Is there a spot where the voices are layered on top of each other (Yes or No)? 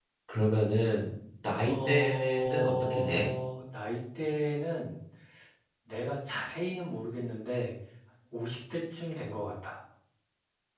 Yes